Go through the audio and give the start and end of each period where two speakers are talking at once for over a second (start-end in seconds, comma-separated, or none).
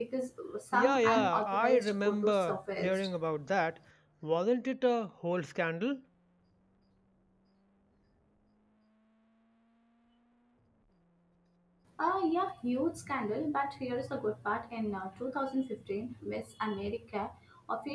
0.7-3.1